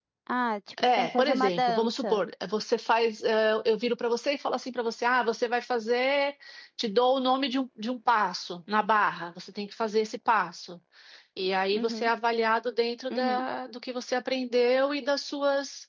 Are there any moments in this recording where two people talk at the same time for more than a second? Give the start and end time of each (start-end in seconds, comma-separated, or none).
0.8-2.2